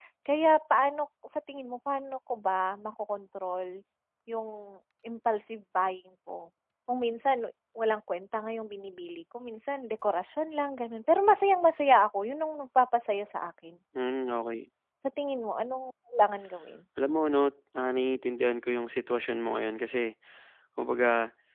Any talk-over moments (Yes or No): No